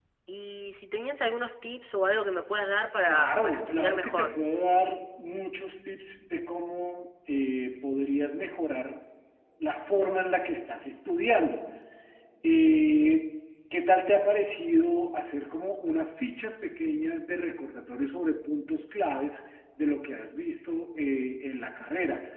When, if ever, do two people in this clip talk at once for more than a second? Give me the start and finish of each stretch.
3.0-4.3

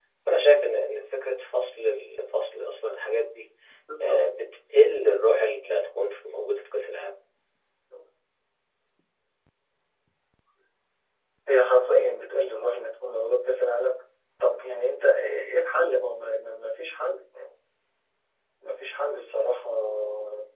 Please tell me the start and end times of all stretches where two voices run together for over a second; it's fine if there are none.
none

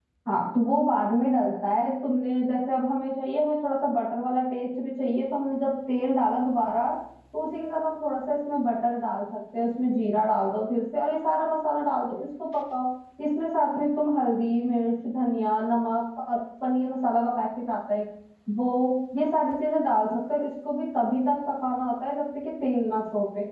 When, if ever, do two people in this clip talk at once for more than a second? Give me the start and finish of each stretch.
none

